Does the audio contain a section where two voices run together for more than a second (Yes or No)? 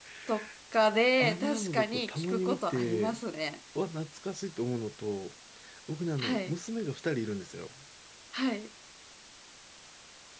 Yes